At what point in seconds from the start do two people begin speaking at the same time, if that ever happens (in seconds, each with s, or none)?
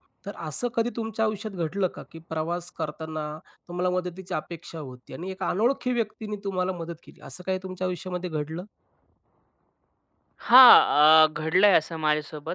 none